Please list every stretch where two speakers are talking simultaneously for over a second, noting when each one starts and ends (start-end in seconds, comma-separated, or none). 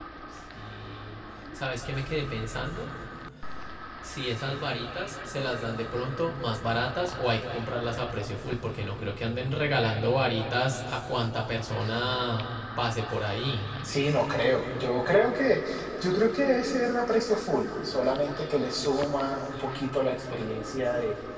none